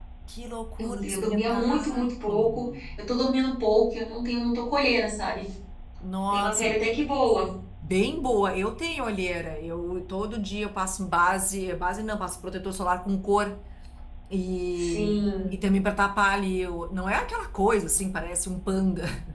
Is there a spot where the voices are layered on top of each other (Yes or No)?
Yes